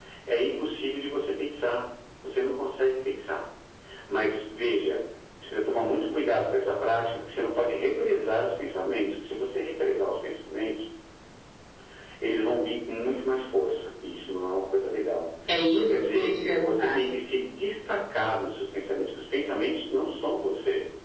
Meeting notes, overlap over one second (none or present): present